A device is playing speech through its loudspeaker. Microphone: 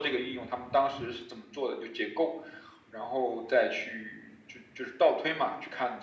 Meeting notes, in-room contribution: none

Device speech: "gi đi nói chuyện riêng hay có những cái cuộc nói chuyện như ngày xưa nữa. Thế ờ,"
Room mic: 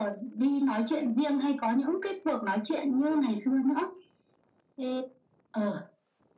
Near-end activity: none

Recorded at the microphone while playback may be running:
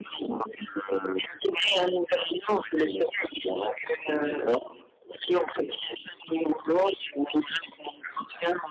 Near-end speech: none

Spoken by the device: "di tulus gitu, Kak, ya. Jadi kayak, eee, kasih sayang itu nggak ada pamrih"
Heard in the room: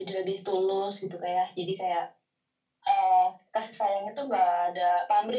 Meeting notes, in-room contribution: none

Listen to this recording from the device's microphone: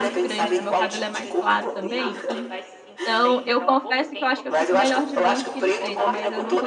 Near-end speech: present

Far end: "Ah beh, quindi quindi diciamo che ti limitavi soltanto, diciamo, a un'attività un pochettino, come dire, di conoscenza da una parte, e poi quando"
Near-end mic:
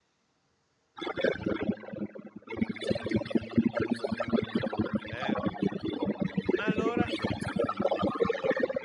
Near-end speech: present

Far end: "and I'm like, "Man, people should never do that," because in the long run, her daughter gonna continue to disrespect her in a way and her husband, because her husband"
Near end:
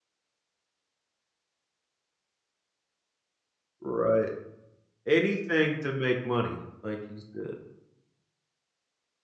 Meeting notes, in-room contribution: present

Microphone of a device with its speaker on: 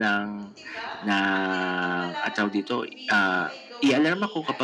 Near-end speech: present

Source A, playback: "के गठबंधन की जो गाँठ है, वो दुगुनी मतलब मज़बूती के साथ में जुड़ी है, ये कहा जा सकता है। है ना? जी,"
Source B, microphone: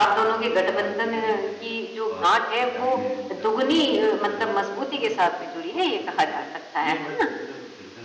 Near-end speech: present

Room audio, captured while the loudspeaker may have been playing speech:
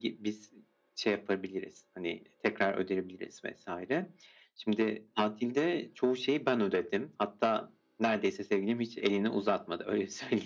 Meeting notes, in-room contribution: none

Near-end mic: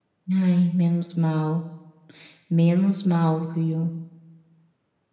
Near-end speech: present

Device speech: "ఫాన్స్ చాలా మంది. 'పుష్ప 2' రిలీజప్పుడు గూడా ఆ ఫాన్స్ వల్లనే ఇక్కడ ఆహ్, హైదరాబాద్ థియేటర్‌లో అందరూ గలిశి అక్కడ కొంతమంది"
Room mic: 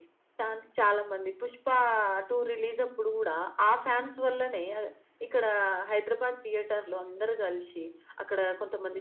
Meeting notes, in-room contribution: none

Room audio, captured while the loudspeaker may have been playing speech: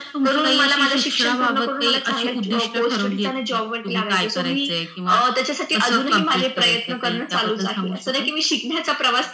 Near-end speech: none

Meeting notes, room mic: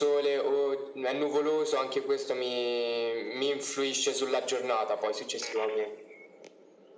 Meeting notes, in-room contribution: none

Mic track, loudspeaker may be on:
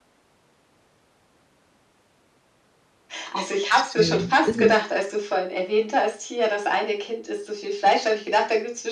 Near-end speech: present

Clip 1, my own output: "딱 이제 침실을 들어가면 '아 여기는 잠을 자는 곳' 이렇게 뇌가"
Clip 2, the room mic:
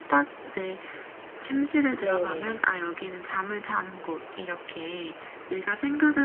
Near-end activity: present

